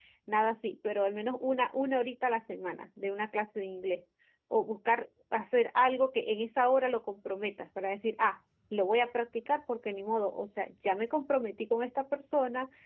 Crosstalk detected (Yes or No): No